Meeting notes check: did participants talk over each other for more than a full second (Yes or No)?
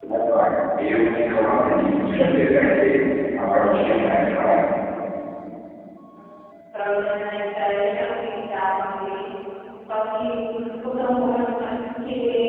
No